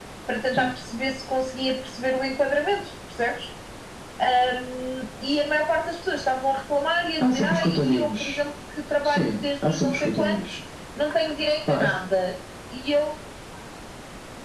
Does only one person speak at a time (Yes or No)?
No